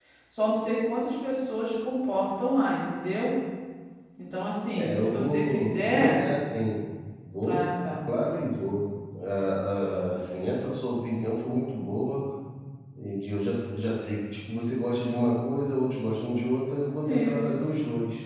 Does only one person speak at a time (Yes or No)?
No